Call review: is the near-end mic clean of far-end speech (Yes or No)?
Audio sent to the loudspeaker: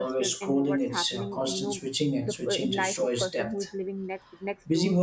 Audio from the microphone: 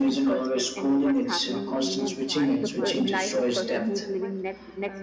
No